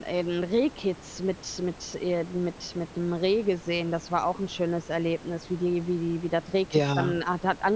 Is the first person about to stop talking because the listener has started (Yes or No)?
No